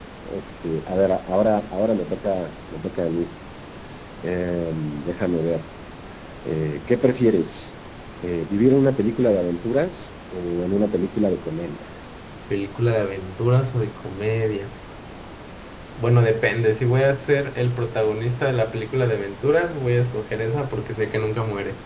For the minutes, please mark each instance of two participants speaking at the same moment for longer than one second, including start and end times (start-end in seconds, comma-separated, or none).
none